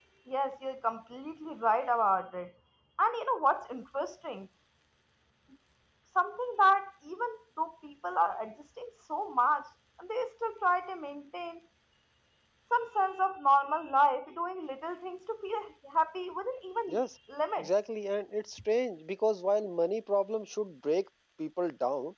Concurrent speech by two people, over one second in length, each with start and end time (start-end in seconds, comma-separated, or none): none